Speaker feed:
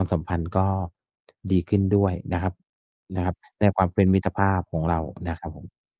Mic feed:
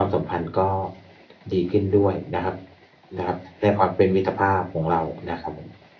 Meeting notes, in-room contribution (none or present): none